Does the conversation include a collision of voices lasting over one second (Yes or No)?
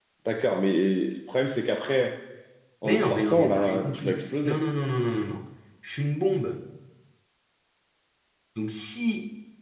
Yes